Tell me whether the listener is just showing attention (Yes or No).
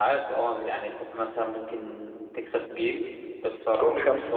Yes